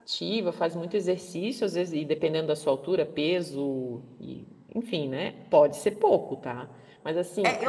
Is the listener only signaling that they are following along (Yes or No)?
No